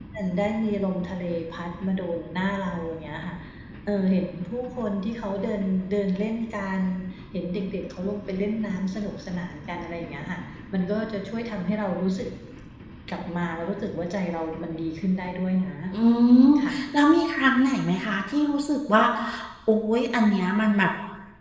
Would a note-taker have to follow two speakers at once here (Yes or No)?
No